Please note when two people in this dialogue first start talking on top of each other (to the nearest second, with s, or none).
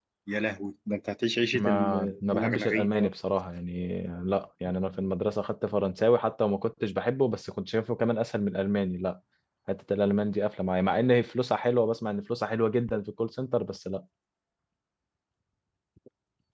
2 s